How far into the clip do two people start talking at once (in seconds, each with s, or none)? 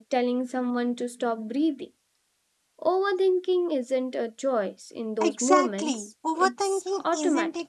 5.2 s